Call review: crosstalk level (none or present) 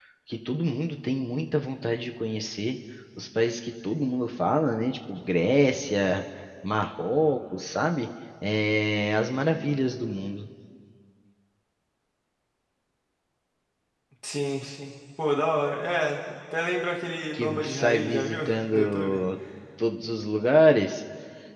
present